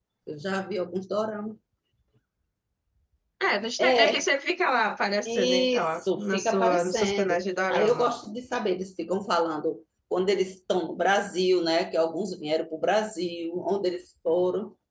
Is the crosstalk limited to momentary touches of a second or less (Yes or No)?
No